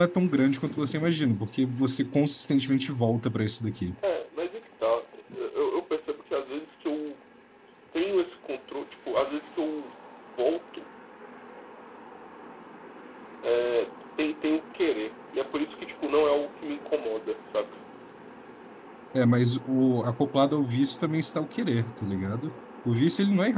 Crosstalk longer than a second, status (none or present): none